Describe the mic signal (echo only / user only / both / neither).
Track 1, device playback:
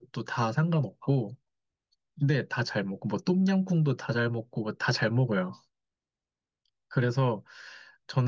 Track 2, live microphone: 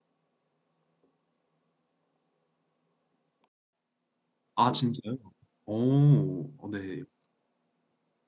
user only